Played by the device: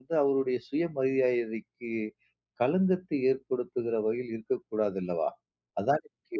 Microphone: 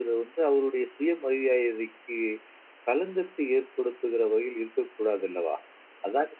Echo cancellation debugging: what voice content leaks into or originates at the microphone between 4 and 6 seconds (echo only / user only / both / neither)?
echo only